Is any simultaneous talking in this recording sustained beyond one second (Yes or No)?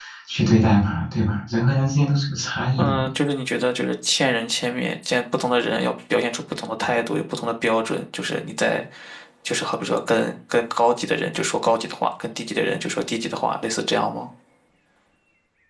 No